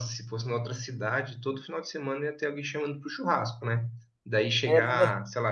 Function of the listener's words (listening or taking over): listening